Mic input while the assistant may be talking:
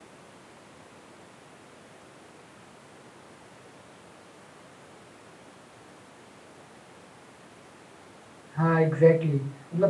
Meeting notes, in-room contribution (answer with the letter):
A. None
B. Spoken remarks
B